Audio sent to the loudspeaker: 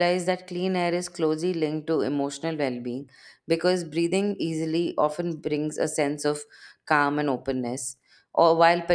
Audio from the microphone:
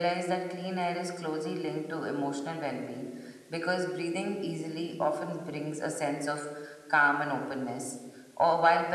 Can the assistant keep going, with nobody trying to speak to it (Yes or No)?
Yes